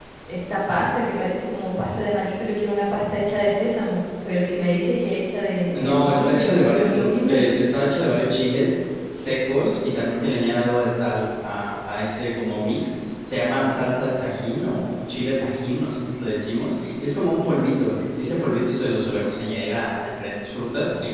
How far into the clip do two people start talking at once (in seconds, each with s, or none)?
5.8 s